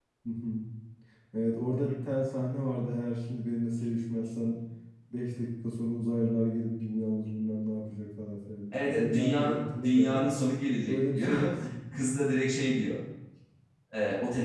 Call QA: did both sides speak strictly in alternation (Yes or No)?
No